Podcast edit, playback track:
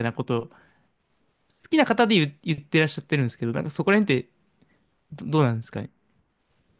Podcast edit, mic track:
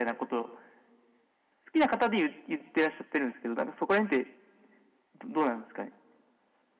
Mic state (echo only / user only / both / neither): echo only